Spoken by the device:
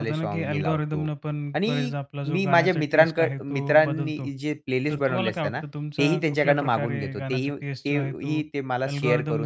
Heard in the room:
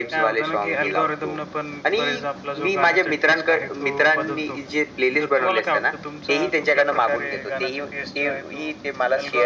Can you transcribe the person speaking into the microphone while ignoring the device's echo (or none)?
none